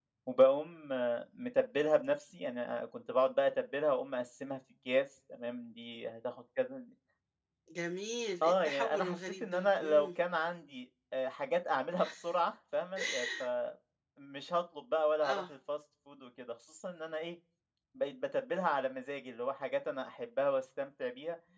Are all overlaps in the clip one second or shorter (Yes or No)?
No